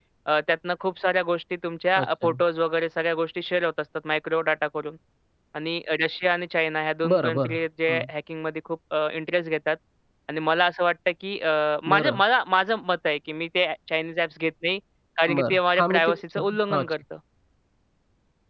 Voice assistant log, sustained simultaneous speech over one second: present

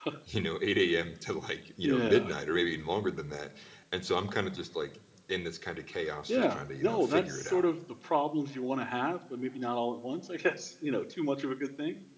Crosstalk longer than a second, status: present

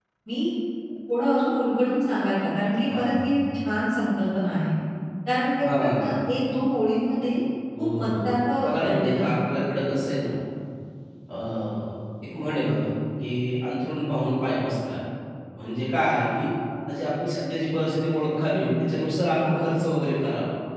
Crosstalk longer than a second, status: present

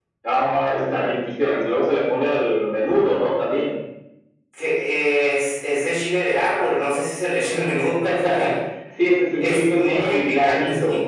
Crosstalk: present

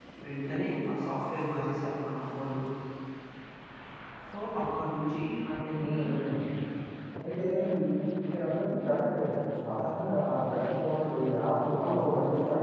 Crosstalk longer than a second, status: none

